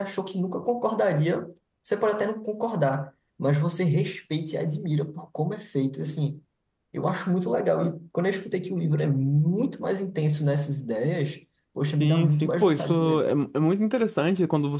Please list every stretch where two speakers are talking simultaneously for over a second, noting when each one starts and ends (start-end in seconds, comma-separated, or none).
12.0-13.3